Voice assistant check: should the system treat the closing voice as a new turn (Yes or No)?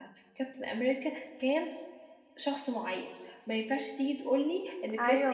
No